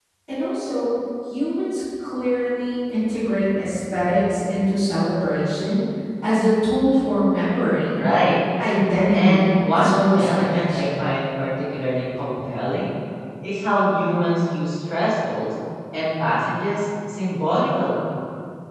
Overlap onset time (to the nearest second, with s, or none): 9 s